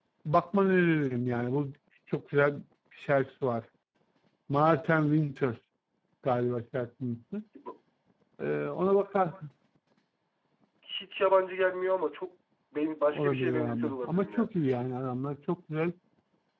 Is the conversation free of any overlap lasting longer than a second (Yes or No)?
No